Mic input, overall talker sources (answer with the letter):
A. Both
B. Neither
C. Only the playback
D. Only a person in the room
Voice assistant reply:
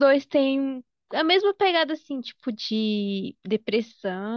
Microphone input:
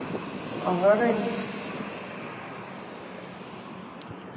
D